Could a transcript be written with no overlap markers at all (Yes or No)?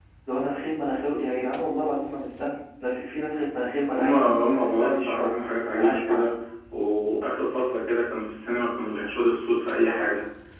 No